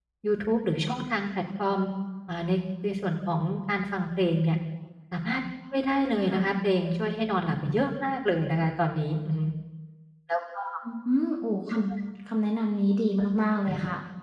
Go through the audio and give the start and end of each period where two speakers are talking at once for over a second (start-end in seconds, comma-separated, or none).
none